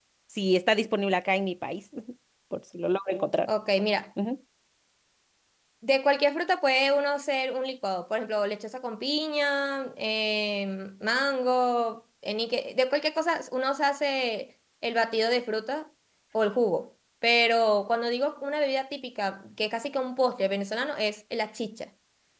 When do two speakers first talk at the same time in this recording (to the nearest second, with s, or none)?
none